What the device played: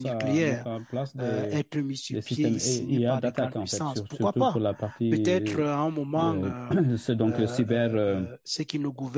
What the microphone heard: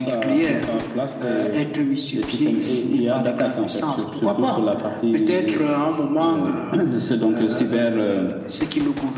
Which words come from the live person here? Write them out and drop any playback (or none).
none